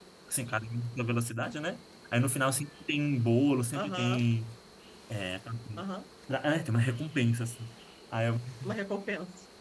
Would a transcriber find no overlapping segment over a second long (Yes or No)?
Yes